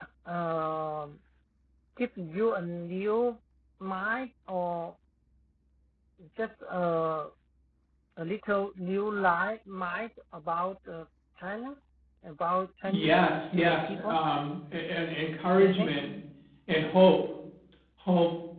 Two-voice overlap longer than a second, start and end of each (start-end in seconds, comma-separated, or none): 12.9-14.2